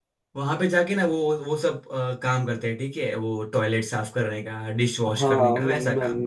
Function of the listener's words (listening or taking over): taking over